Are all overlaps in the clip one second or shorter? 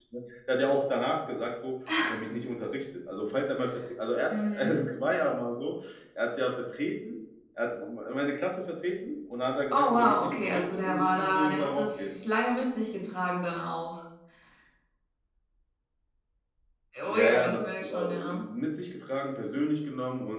No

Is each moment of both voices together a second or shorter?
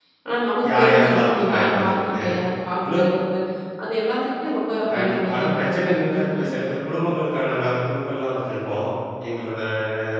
No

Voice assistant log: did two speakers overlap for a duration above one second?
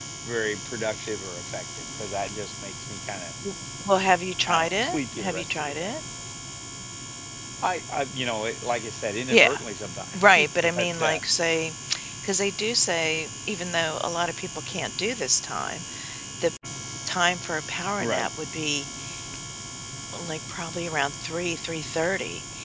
Yes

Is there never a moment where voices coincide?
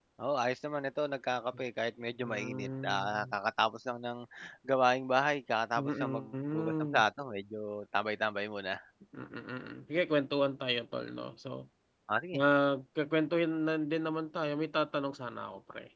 No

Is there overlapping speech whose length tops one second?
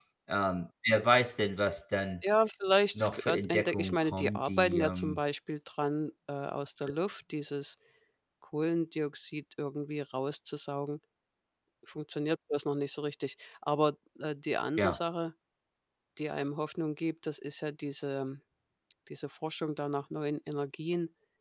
Yes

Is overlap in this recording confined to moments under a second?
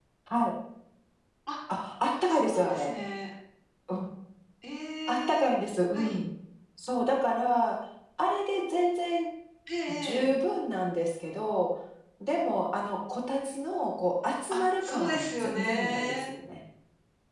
No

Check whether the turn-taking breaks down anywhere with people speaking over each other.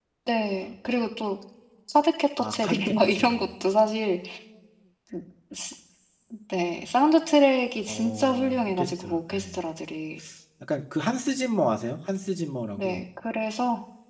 Yes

